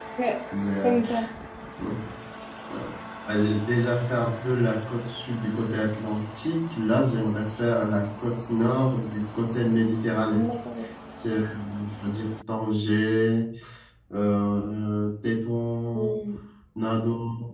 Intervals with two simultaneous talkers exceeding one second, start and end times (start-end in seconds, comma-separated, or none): none